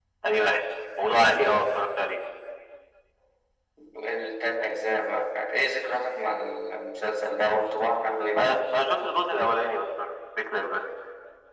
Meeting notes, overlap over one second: none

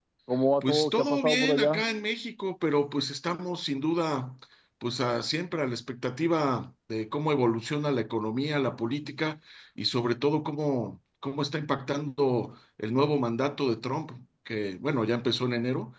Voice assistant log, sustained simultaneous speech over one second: present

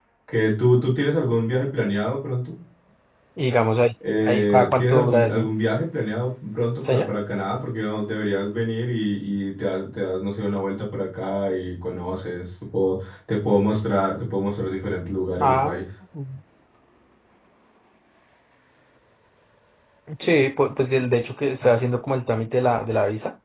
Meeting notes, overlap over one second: present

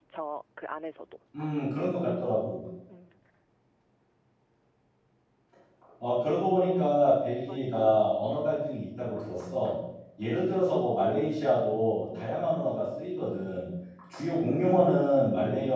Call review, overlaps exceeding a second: none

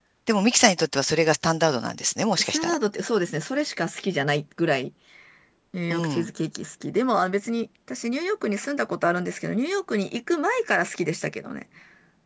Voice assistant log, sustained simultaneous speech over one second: none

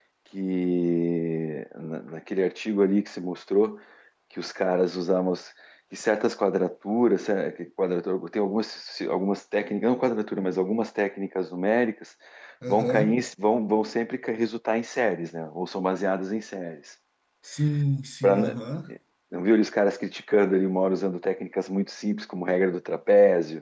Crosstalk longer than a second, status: none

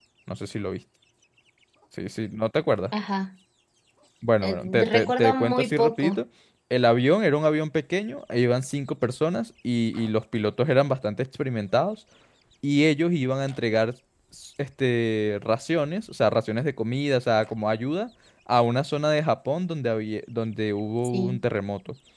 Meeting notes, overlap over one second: present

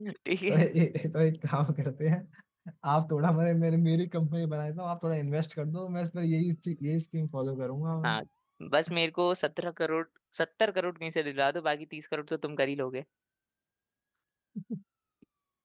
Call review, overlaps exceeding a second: none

